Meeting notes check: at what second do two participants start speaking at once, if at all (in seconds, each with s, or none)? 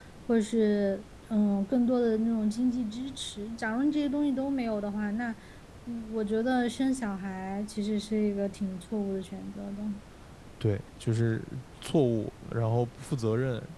none